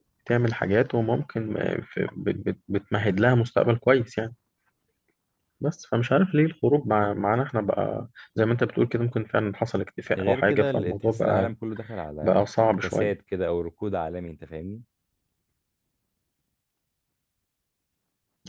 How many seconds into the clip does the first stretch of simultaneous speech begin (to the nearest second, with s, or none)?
10 s